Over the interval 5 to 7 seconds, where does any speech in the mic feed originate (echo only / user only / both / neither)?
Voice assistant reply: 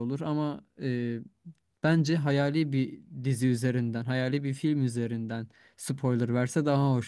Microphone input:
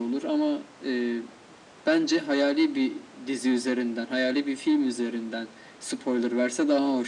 echo only